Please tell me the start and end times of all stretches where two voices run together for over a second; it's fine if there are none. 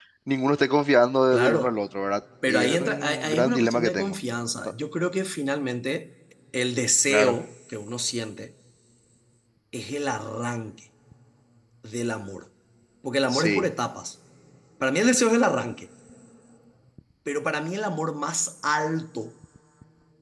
2.5-4.2

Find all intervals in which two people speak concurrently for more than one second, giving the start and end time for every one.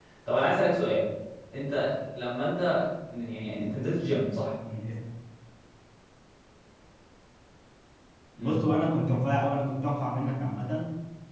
none

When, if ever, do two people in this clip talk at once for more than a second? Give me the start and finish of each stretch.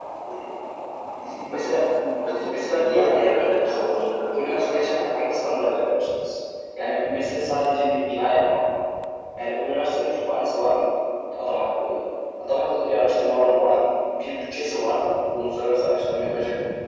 2.5-4.9

